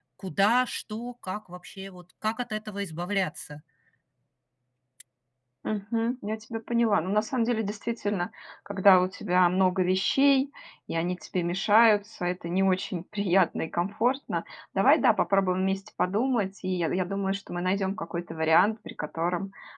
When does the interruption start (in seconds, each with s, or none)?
none